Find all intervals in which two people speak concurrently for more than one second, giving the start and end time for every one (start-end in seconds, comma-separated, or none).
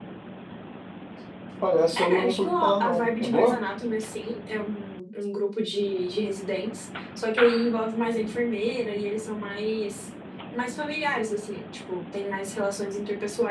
2.0-3.6